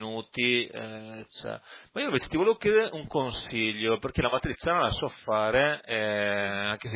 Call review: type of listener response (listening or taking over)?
listening